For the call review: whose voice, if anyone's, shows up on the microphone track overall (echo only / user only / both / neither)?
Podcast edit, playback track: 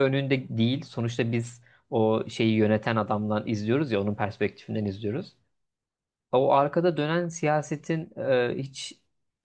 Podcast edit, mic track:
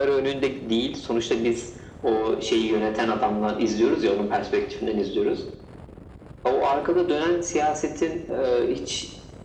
echo only